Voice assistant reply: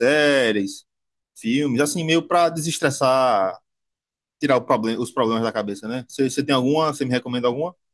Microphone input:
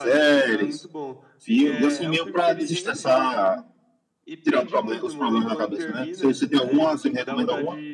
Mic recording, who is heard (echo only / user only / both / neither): both